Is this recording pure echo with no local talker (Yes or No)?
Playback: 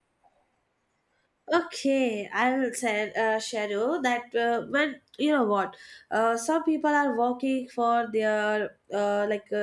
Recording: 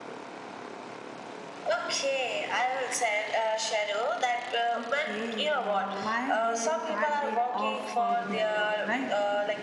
No